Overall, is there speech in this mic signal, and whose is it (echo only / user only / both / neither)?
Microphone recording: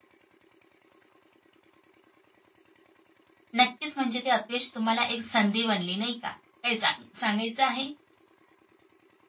user only